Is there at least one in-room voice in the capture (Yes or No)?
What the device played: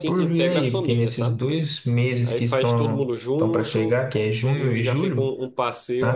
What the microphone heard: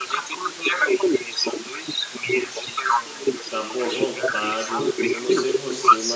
Yes